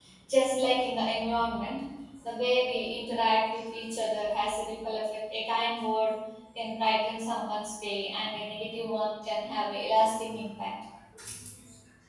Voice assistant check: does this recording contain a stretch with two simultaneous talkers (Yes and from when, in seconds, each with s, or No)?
No